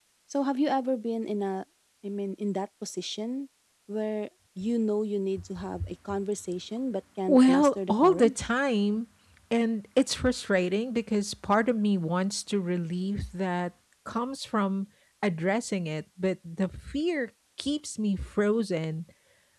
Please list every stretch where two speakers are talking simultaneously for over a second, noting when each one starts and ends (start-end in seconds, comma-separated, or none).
7.3-8.5